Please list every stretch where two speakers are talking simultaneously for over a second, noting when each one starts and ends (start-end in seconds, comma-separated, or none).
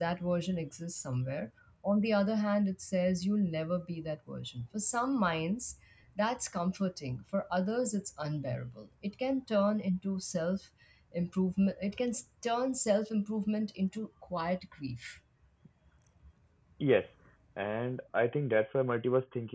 none